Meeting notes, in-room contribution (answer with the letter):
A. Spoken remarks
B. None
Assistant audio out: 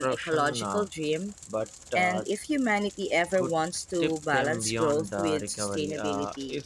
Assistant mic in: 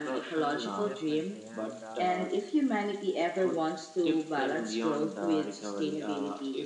A